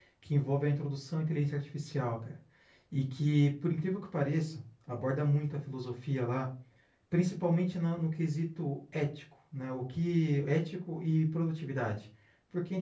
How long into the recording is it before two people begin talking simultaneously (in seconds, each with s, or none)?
none